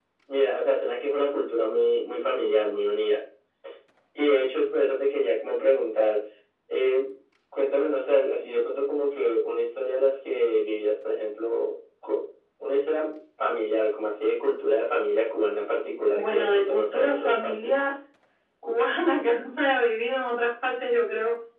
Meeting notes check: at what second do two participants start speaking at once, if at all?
16.1 s

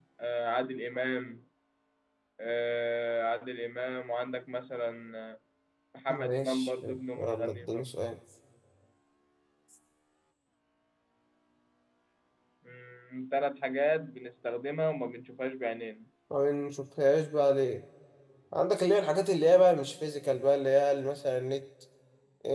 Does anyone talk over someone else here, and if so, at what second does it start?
6.1 s

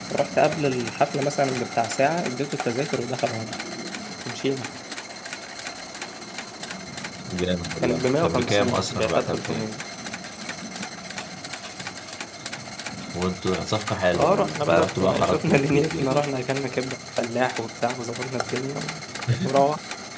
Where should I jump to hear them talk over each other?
7.8 s

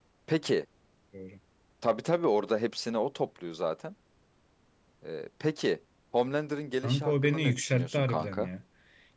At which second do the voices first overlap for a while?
6.8 s

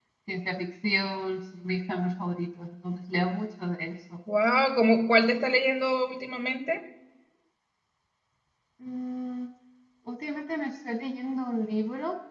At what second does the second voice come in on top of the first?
none

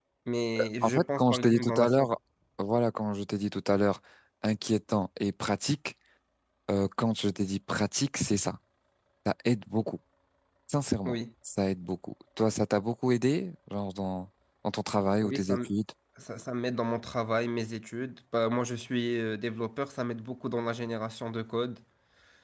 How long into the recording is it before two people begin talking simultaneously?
0.8 s

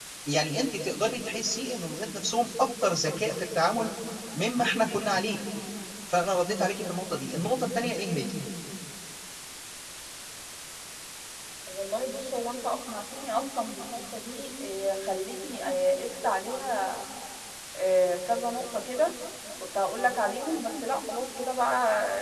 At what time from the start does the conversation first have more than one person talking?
none

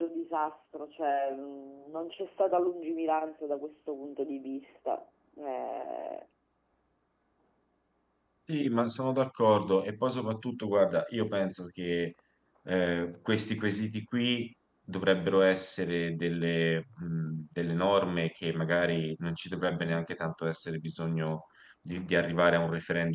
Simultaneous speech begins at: none

